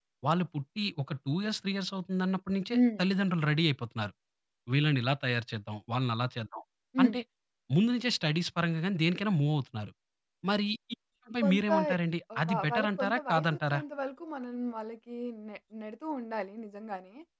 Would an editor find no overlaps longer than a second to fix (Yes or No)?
No